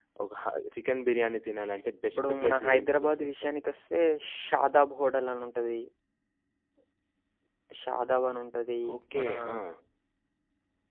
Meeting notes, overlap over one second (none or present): present